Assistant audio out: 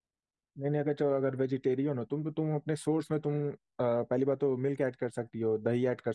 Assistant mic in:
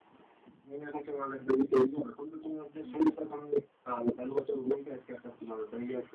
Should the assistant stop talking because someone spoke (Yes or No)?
Yes